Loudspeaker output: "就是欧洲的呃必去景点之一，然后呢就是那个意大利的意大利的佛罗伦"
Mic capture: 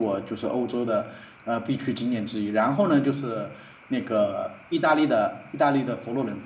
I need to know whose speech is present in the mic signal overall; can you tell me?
echo only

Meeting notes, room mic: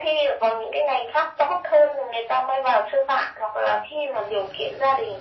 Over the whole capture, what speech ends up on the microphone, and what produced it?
echo only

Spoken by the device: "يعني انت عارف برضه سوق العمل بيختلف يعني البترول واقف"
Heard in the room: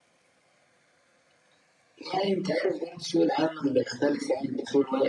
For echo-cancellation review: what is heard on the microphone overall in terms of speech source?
echo only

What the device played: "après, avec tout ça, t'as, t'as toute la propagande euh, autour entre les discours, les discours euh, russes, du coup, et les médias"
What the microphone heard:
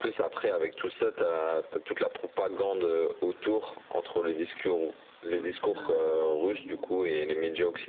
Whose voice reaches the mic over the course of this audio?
both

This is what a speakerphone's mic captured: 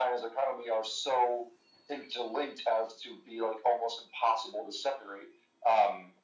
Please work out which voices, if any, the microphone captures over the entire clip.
echo only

